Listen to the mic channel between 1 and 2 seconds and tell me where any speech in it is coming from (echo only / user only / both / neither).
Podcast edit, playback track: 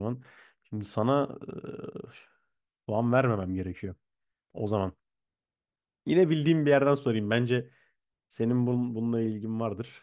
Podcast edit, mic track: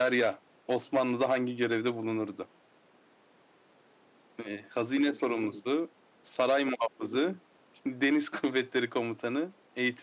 user only